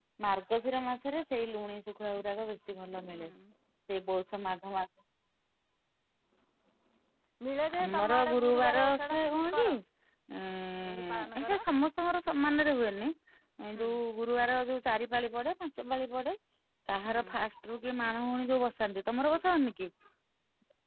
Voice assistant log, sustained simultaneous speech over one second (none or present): present